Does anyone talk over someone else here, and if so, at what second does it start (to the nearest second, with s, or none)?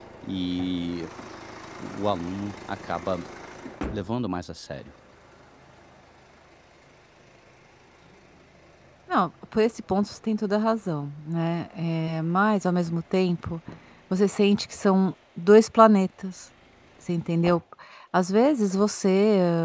none